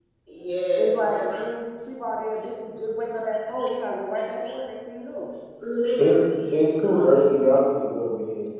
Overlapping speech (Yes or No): Yes